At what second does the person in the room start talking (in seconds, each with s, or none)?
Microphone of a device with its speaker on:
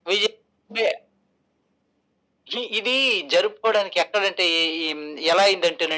none